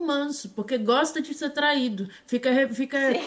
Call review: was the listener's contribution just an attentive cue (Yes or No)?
Yes